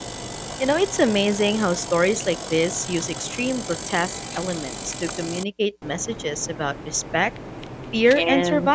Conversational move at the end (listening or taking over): taking over